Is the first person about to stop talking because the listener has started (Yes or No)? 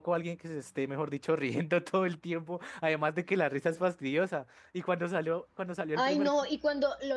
Yes